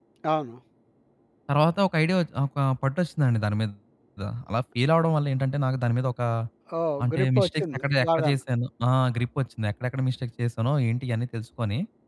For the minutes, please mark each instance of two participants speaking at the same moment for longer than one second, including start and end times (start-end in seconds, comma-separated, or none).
7.0-8.4